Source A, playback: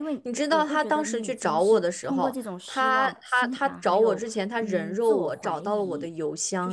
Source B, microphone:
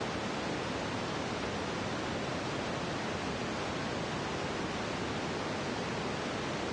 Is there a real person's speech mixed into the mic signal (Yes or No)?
No